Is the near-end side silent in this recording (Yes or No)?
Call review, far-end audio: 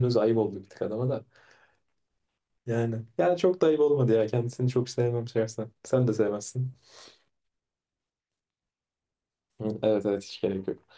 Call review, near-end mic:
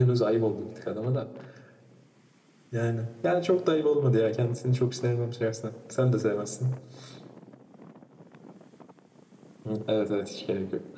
Yes